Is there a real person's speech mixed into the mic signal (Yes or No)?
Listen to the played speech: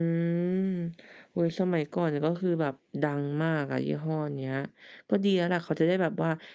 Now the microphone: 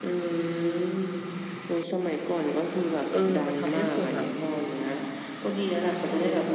Yes